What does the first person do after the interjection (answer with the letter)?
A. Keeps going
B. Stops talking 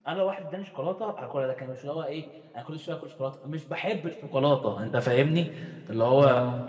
A